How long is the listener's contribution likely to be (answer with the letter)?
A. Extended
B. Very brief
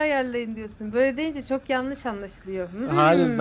A